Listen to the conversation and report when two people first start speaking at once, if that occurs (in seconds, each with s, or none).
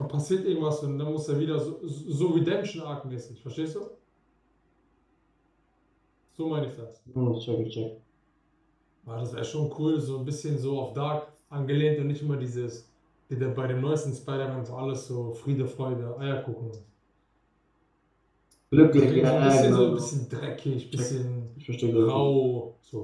18.9 s